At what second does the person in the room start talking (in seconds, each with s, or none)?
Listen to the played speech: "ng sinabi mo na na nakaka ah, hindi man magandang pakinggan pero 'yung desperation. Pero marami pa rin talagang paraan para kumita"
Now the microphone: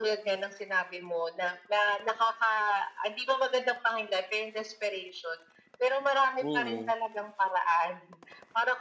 6.4 s